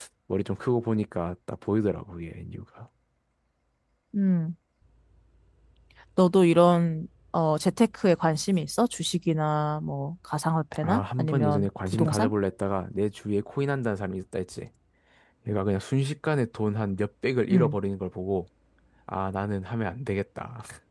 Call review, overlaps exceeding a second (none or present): present